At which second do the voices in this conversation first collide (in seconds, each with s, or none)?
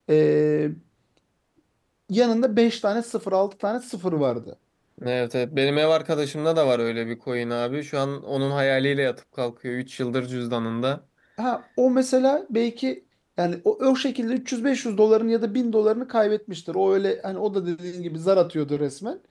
none